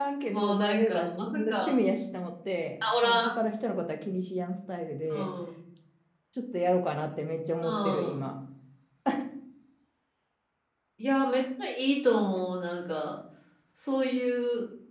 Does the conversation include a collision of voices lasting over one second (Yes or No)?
Yes